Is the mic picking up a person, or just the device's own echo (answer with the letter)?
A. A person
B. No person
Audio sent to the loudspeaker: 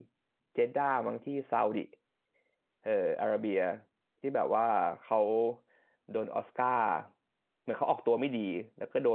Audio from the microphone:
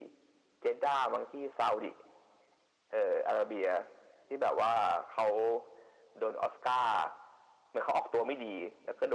B